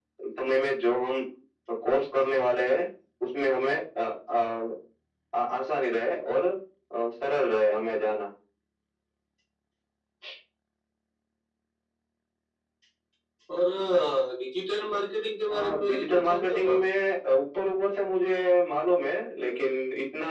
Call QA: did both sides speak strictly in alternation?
No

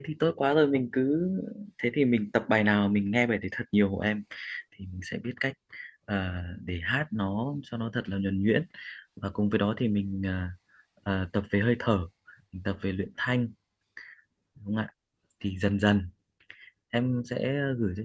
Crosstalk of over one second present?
No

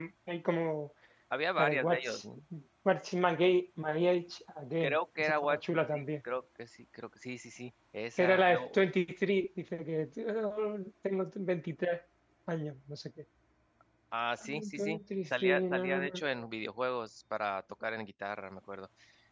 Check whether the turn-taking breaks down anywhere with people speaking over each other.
Yes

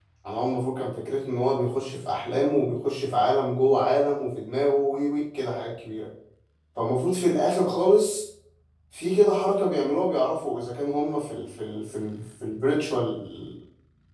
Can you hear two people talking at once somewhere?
No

